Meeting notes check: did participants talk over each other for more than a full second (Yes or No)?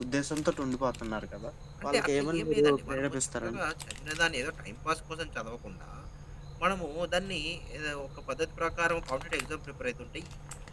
Yes